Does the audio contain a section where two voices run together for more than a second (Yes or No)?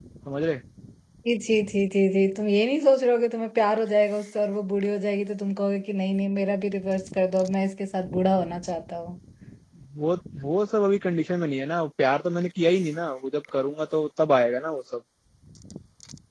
No